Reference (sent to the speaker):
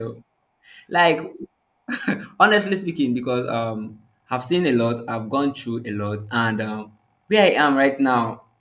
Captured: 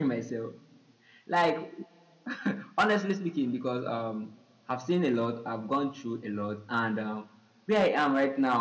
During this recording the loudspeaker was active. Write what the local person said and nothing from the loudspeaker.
none

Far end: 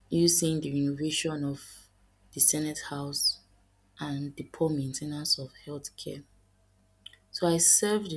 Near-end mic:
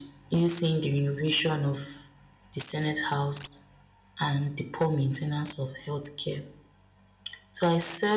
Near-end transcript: none

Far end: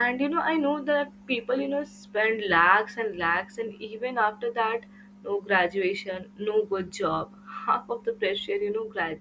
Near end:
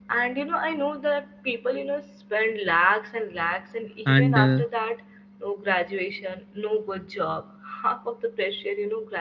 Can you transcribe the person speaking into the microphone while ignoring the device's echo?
And, uh,

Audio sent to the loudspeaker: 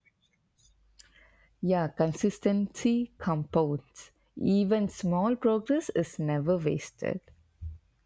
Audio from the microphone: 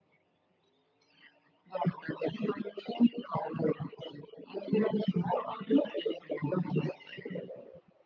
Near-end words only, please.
none

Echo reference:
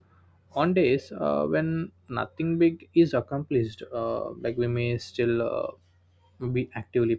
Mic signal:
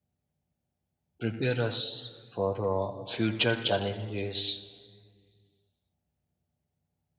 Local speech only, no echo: prepare us for uh, future challenges

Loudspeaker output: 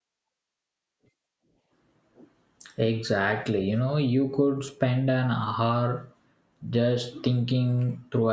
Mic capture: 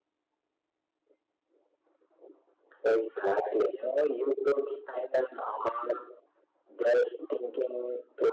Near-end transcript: none

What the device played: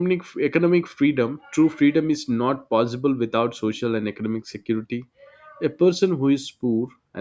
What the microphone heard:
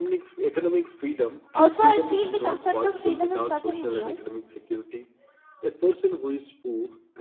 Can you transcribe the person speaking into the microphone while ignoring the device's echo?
Also, I feel the concept of freedom is nothing new.

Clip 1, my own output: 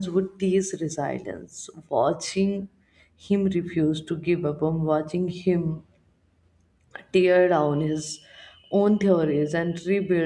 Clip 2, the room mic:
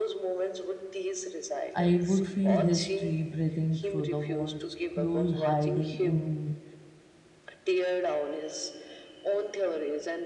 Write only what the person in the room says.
I would feel history breathing through the walls, clues hiding in

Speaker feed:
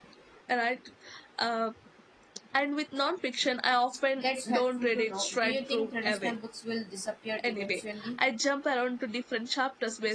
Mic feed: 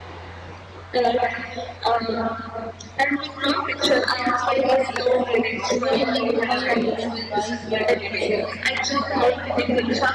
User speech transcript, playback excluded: Do I need to buy a Kindle device or can I just use the app?

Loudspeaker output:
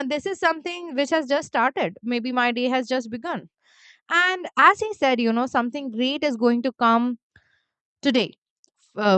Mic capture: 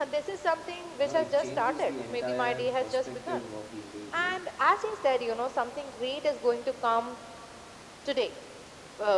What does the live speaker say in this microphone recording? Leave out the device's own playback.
you know it changes the entire perspective of the individual

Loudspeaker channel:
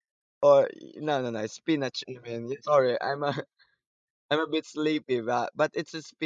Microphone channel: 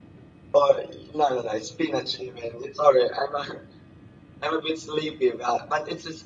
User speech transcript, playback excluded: none

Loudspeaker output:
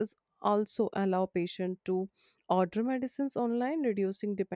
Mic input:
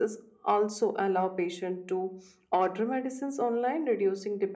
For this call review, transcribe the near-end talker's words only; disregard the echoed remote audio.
none

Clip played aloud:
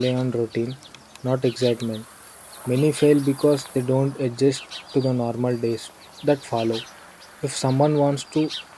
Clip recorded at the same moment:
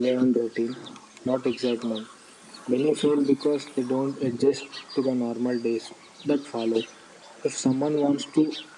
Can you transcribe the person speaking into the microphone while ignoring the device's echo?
none

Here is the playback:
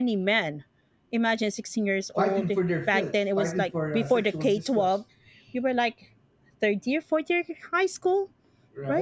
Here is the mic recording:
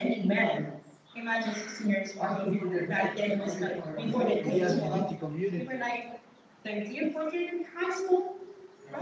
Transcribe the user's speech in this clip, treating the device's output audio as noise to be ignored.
the LGBT community,

